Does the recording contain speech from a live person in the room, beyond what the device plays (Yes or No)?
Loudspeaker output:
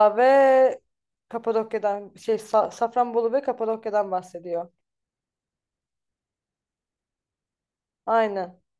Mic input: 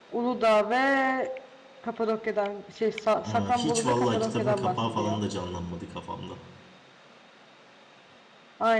Yes